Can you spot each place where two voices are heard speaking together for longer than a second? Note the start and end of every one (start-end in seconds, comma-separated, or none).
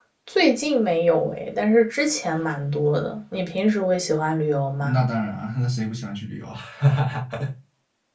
none